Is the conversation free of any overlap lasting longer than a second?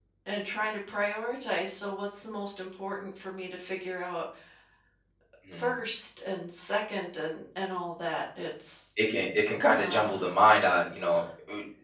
Yes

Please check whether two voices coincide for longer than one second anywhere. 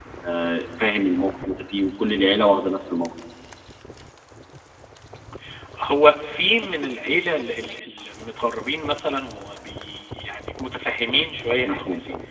No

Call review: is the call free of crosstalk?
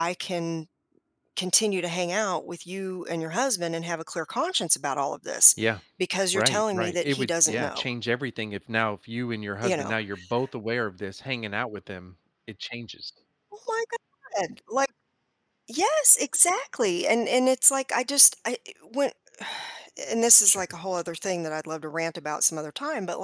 No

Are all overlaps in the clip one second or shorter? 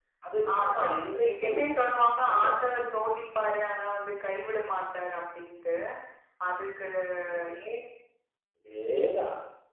Yes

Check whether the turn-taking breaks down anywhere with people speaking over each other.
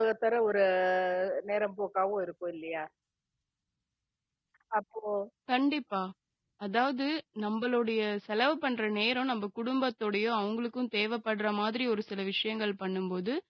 No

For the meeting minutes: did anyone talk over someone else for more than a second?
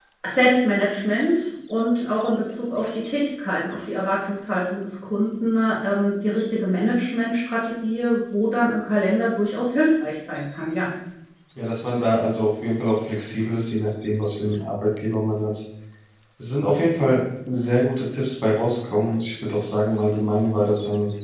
No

